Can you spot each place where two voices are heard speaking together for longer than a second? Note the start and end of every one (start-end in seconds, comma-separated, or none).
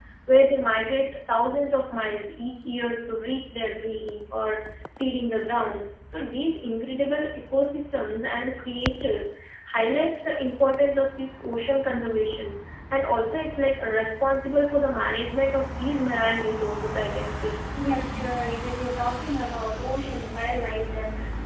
none